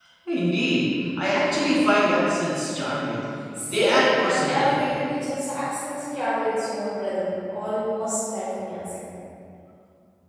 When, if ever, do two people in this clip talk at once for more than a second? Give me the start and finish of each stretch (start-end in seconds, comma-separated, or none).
3.6-5.0